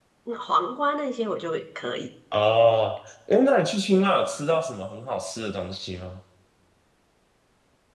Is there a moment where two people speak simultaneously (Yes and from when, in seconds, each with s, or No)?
No